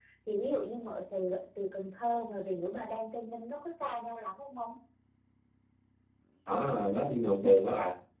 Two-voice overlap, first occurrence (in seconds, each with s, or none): none